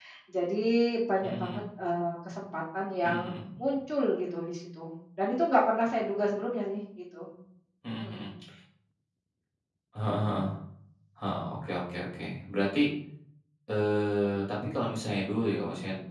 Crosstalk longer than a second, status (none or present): none